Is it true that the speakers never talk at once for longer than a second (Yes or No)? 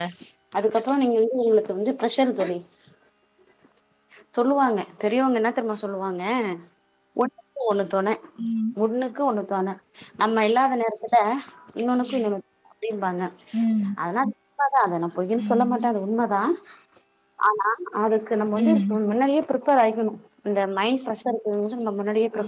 Yes